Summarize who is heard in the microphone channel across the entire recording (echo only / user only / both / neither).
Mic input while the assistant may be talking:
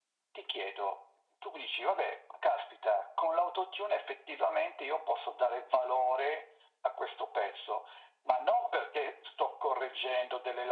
echo only